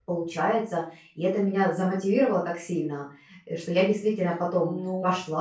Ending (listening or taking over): taking over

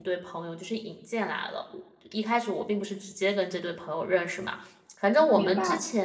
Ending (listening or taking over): listening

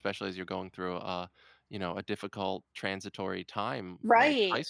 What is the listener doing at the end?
taking over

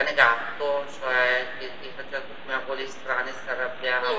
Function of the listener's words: listening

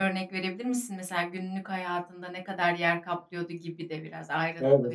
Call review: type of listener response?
taking over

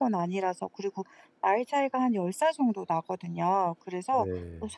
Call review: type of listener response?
listening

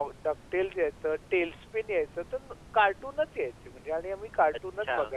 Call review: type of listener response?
listening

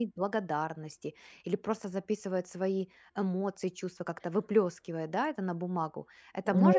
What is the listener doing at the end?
taking over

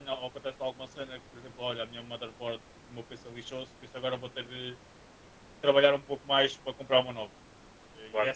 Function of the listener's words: listening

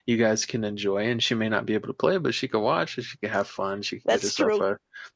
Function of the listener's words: listening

